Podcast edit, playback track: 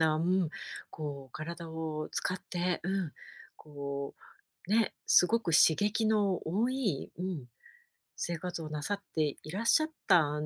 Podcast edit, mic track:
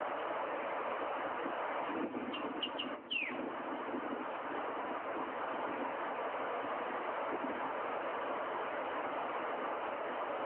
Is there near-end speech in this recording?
No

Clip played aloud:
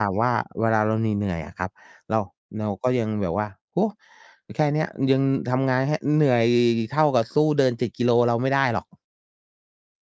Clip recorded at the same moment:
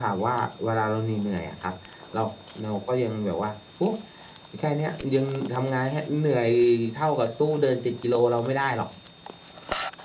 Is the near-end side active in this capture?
No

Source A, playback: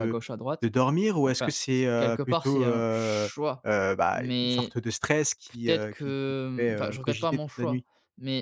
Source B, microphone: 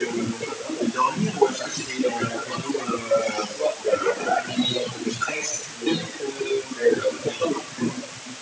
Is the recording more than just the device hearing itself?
No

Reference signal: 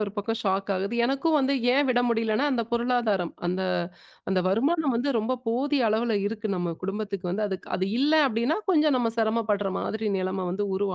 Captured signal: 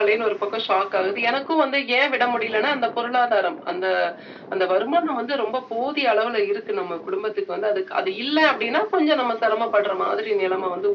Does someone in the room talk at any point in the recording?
No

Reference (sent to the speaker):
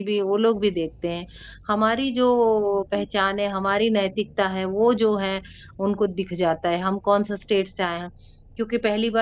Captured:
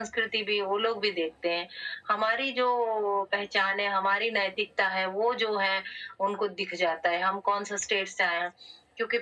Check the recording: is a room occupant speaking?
No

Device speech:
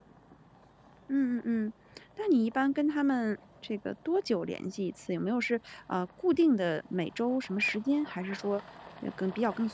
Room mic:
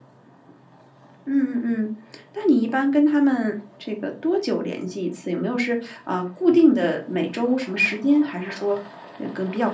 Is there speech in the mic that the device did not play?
No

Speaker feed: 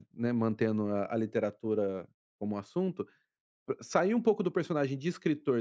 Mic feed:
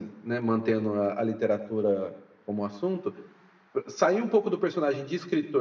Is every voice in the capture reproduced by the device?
Yes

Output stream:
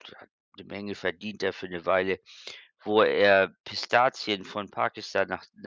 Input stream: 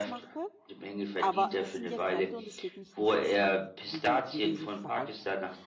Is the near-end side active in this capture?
Yes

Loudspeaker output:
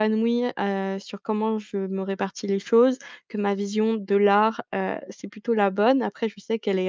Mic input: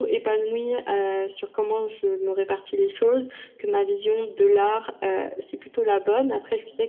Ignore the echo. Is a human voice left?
No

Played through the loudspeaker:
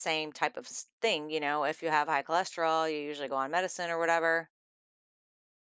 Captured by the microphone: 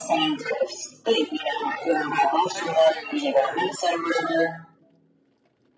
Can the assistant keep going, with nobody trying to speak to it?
No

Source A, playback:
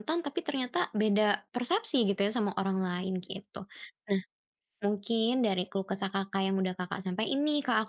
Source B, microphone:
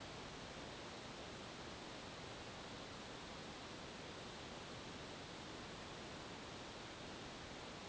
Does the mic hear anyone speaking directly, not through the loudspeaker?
No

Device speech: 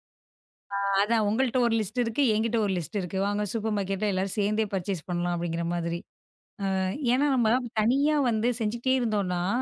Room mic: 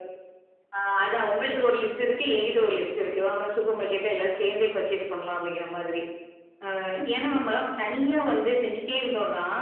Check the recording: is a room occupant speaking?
No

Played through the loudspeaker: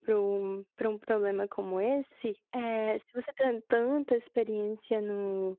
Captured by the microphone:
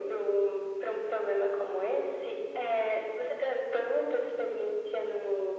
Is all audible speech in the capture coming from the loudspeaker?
Yes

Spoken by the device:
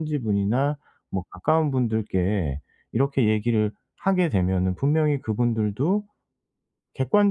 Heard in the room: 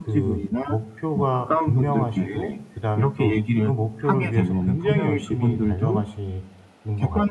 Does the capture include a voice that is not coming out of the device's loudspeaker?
Yes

